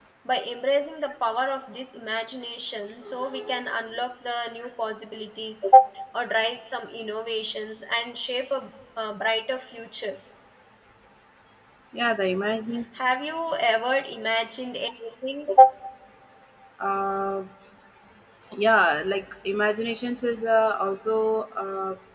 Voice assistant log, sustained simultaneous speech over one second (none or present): none